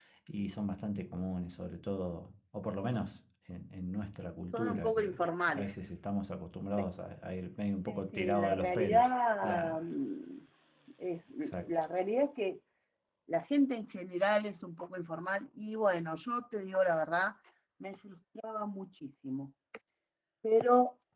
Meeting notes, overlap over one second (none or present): present